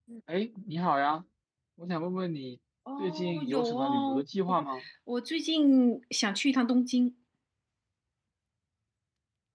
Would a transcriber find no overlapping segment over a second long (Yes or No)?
No